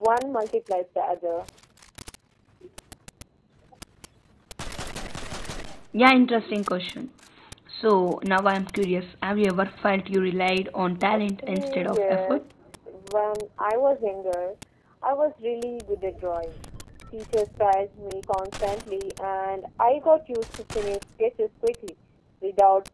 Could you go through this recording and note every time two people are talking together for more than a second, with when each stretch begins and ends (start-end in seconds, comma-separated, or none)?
11.1-12.4